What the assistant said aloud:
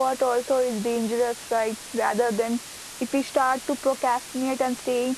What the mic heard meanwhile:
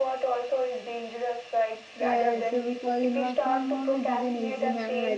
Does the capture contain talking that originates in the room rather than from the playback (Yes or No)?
Yes